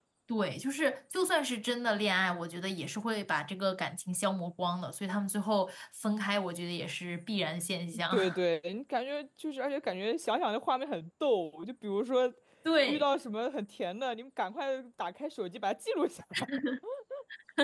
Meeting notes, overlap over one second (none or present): none